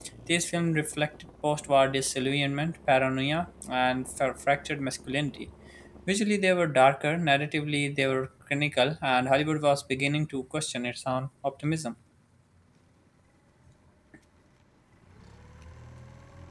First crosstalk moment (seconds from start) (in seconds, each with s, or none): none